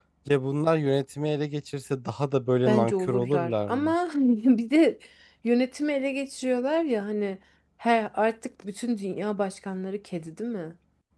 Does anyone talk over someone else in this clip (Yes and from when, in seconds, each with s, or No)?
Yes, from 2.7 s